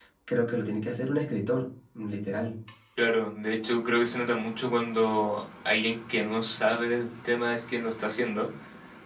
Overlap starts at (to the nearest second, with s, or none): none